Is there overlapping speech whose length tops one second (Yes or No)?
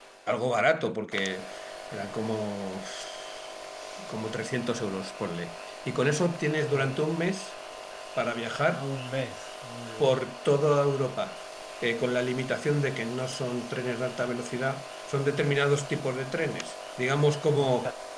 No